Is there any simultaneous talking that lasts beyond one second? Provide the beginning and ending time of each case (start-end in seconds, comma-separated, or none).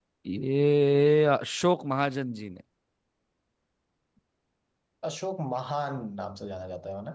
none